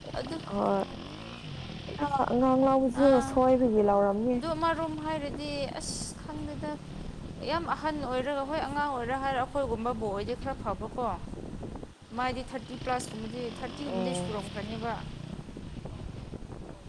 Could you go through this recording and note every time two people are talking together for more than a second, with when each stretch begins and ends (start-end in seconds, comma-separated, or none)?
none